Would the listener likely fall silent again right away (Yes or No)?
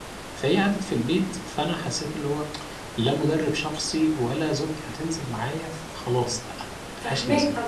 No